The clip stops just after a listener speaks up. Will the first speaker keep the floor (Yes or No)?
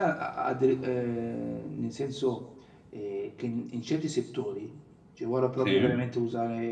Yes